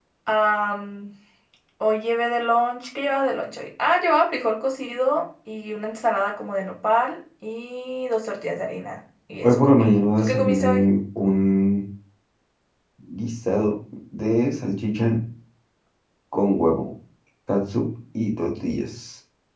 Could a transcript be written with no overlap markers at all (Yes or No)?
No